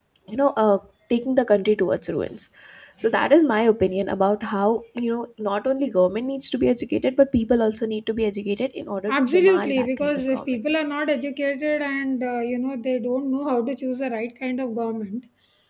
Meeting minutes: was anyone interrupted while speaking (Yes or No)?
Yes